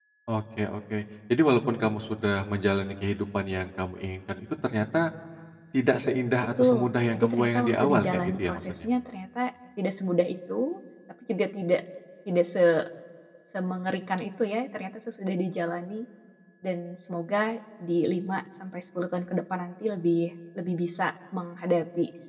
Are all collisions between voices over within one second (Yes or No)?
No